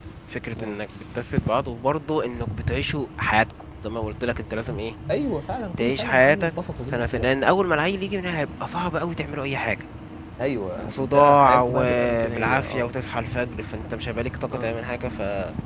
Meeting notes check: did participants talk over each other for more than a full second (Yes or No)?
Yes